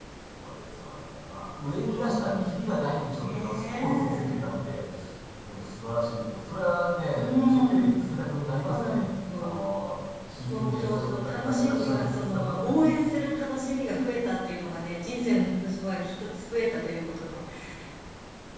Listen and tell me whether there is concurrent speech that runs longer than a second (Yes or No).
Yes